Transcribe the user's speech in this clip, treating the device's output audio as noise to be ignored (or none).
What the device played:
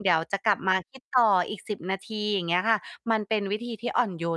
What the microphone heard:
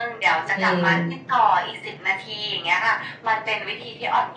อือ